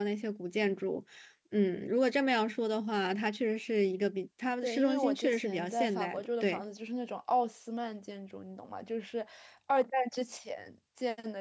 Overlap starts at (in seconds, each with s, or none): 4.6 s